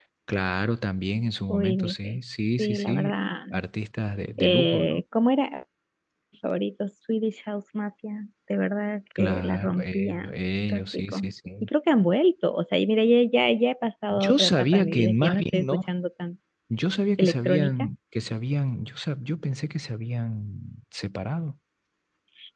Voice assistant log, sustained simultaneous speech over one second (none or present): present